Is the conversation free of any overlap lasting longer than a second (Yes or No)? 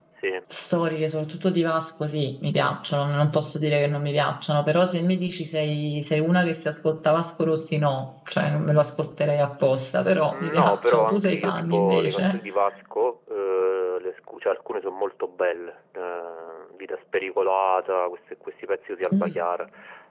No